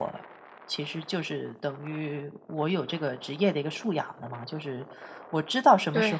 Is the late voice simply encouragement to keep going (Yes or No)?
Yes